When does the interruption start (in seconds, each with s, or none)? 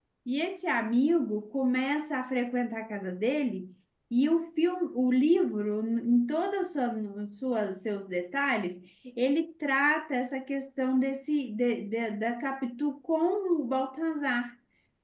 none